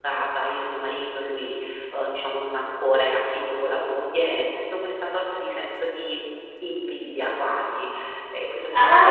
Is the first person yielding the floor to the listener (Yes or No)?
Yes